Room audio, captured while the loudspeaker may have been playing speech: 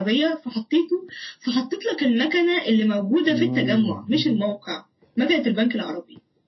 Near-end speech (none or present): present